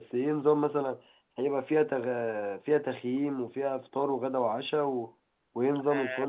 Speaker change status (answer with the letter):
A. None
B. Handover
B